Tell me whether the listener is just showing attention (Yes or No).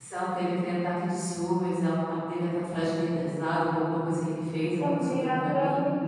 No